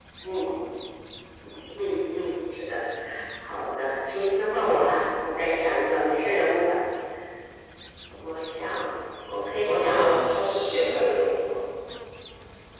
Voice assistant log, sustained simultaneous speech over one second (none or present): none